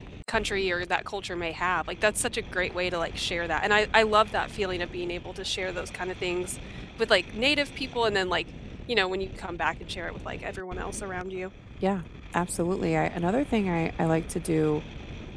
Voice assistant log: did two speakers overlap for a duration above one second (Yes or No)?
No